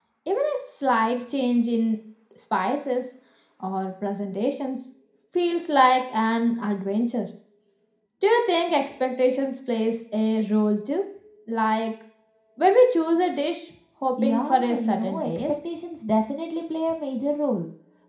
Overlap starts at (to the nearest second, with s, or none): 14 s